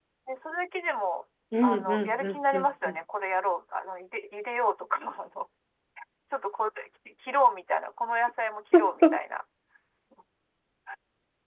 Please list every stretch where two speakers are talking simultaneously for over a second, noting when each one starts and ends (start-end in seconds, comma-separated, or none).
1.6-3.0